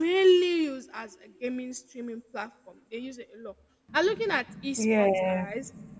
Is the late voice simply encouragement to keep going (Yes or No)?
Yes